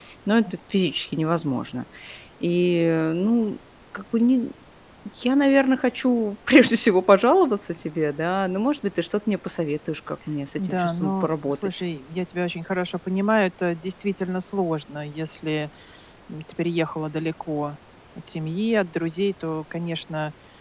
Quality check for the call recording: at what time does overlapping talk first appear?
11 s

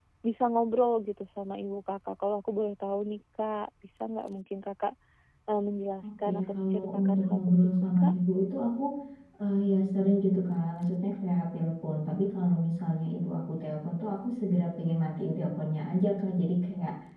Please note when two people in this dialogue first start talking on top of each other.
6 s

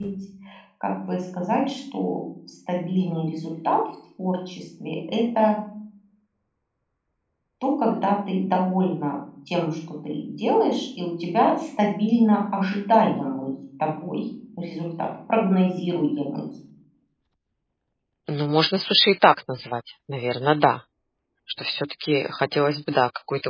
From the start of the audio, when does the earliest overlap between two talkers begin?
none

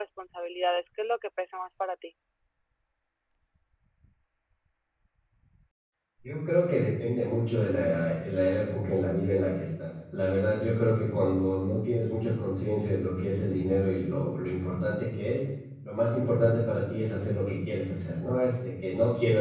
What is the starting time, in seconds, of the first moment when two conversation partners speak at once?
none

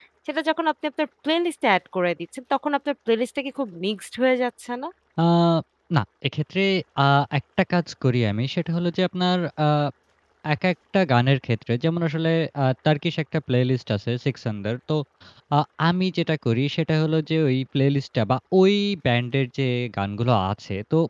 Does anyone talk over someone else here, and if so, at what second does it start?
none

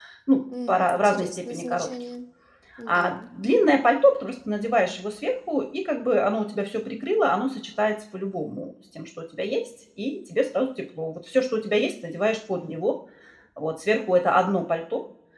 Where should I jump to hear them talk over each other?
1 s

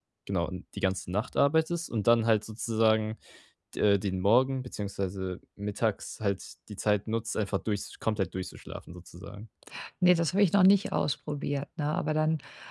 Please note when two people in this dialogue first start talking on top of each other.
none

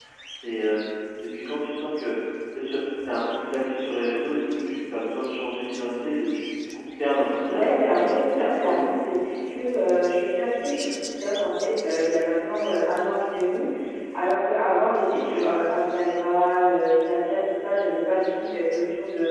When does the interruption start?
7 s

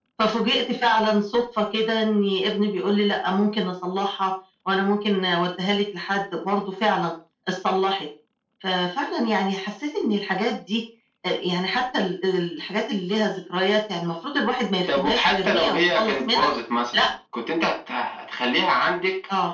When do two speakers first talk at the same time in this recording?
15 s

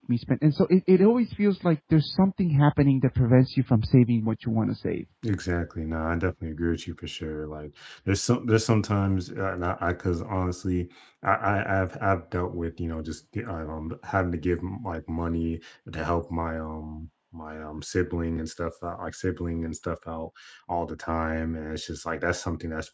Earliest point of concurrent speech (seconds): none

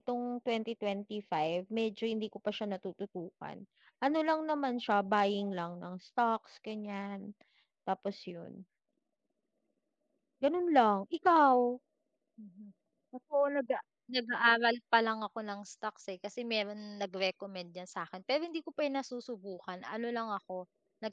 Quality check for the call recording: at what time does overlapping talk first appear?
none

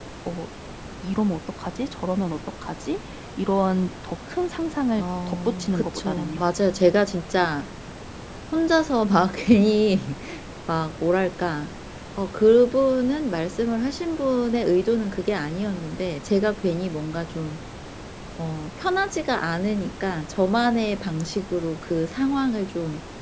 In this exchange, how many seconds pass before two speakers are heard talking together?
5 s

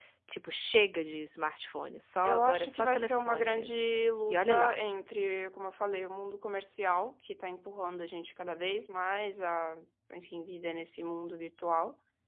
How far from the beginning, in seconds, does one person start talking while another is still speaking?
2 s

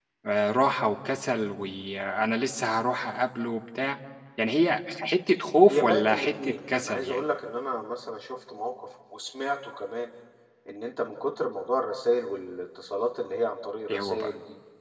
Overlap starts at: 6 s

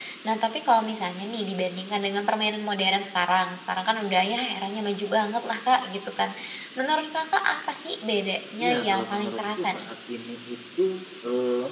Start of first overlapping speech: 9 s

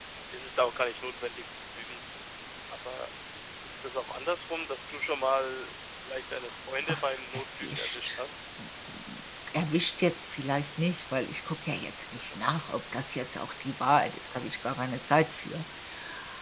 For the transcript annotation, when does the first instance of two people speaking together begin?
7 s

